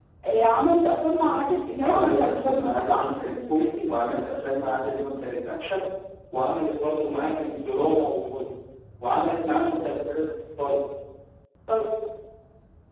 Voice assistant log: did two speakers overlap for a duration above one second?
Yes, from 1.8 s

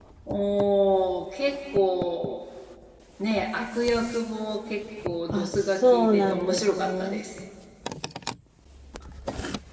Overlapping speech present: Yes, from 5.3 s

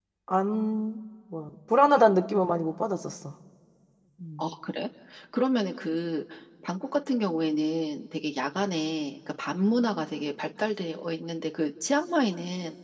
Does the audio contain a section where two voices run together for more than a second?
No

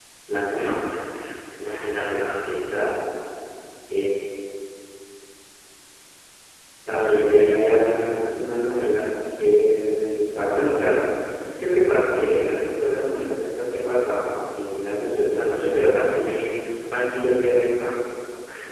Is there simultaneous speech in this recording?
Yes, from 6.9 s

